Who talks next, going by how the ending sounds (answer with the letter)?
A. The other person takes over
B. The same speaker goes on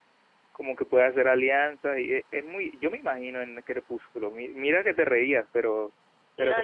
A